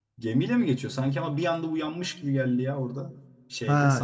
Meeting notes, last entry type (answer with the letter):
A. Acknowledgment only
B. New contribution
B